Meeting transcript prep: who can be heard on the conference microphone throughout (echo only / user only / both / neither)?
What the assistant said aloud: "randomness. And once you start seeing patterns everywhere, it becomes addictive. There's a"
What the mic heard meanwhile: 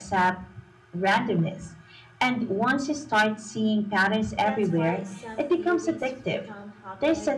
both